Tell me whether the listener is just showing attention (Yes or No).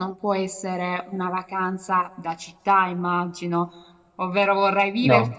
Yes